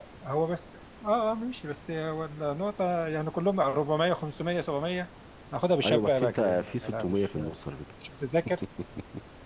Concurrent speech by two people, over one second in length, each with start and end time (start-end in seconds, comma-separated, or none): 5.8-7.4